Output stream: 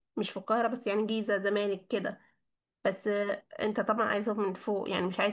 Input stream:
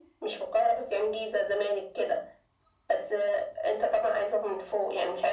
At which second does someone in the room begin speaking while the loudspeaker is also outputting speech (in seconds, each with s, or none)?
none